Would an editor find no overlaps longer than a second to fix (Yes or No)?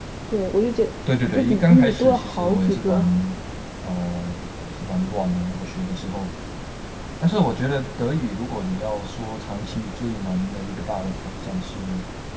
No